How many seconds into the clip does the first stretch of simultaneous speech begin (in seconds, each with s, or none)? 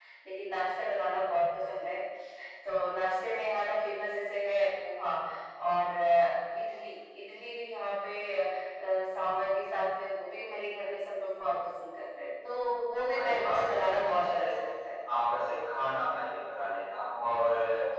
13.1 s